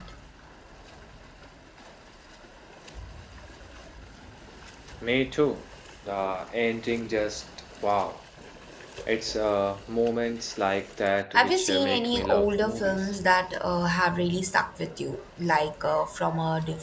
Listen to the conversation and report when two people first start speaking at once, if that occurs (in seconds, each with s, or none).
11.3 s